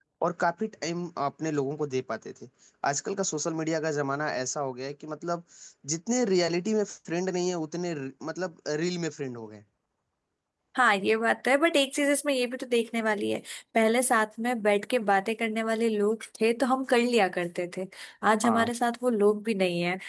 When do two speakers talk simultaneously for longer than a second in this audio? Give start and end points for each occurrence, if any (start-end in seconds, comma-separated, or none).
none